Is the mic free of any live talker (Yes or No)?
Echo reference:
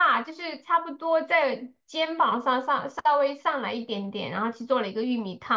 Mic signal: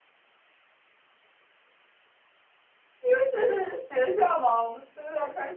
No